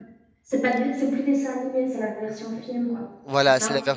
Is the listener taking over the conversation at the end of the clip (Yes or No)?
Yes